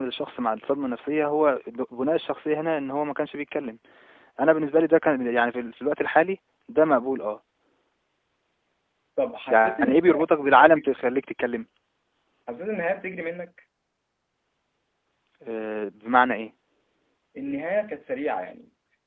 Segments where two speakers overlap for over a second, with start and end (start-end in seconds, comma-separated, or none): 9.5-10.9